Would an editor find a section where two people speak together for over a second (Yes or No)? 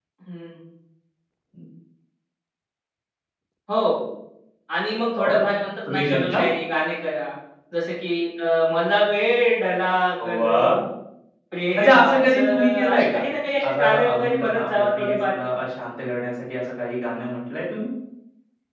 Yes